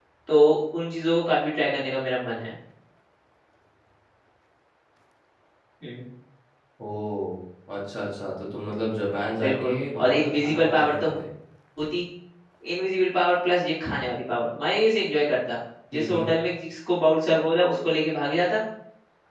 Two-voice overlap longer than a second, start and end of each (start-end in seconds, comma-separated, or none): 9.4-11.1